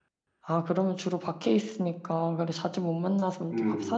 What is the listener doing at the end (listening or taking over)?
taking over